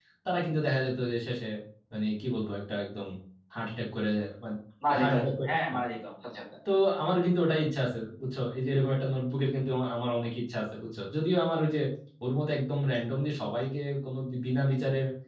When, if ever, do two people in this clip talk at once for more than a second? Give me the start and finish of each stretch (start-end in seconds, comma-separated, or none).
none